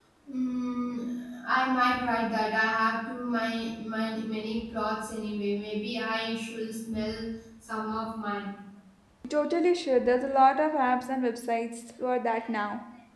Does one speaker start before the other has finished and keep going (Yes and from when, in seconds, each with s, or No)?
No